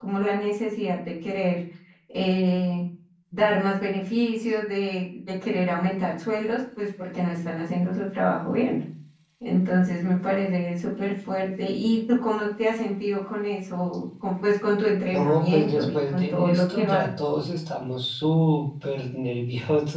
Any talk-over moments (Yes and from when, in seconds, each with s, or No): Yes, from 15.1 s